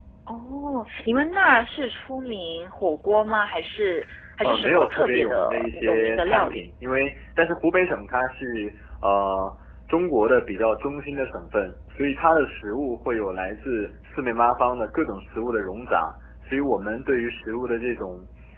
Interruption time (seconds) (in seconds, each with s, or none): 4.4 s